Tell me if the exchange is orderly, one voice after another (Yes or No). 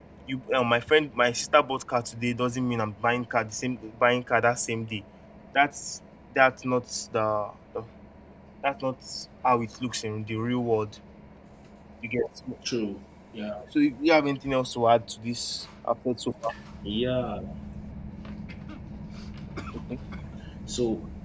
Yes